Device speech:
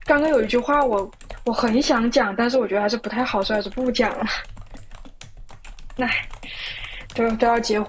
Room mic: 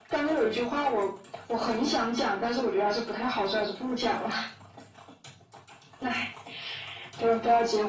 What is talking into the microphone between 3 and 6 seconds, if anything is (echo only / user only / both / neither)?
echo only